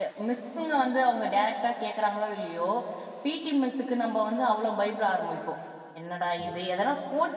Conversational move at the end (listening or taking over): listening